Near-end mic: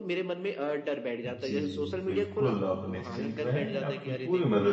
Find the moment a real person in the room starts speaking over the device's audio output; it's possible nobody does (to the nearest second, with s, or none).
1 s